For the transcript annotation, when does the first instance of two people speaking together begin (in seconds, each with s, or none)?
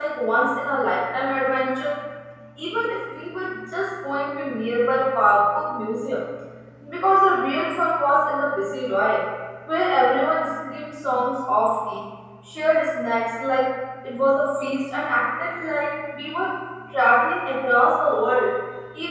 none